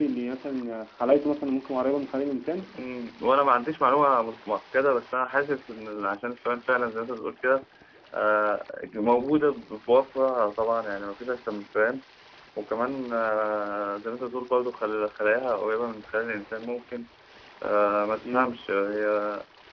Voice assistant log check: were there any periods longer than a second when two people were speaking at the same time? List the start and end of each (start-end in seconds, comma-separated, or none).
none